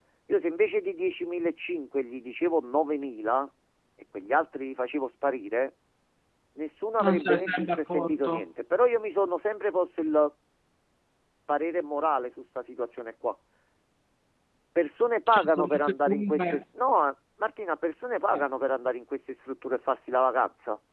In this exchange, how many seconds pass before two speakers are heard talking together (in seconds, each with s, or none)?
7.0 s